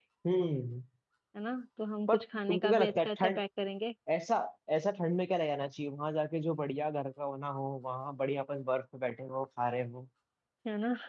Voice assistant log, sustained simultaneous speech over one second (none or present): present